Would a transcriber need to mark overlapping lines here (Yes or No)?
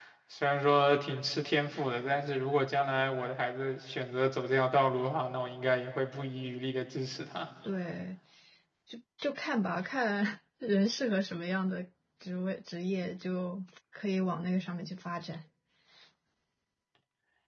No